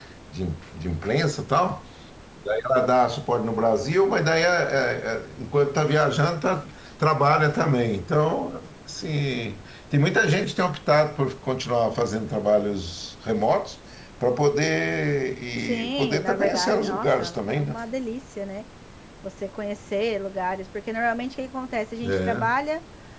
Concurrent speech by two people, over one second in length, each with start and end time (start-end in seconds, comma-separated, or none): 15.6-17.7